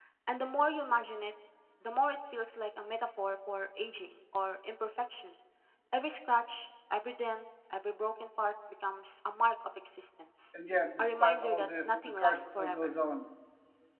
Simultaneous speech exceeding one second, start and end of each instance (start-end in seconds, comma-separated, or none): 11.0-12.9